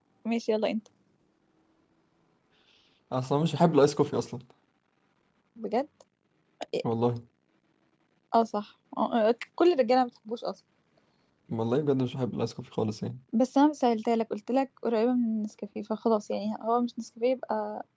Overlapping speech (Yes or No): No